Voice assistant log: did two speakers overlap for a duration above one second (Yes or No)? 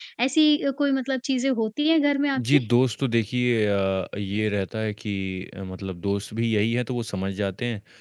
No